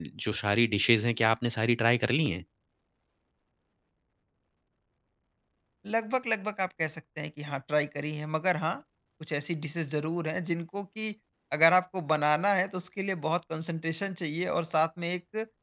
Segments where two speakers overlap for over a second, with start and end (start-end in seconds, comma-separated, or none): none